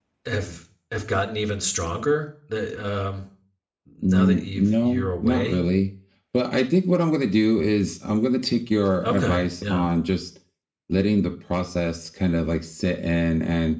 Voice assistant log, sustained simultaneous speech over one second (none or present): present